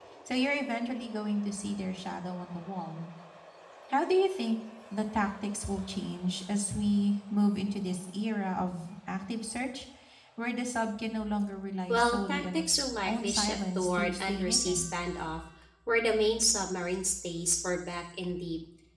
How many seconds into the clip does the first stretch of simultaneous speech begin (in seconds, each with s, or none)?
11.9 s